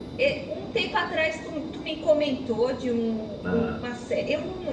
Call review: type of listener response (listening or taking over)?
listening